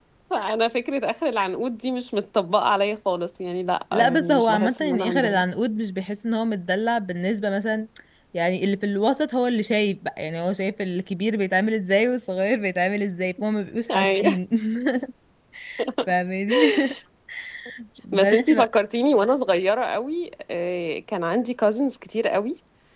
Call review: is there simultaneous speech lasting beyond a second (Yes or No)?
Yes